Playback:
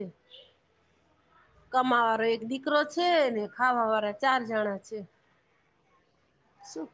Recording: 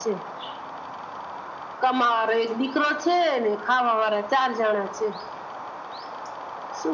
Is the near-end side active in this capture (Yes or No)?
No